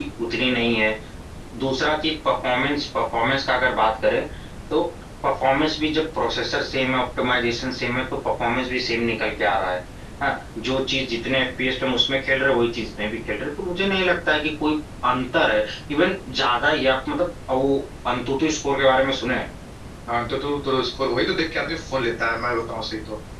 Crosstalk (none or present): none